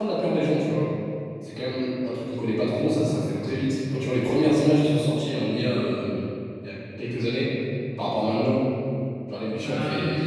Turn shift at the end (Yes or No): Yes